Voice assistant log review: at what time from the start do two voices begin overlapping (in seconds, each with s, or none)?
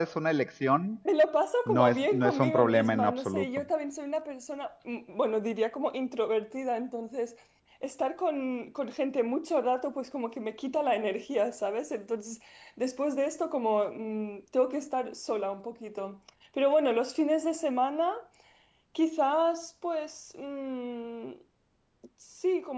1.7 s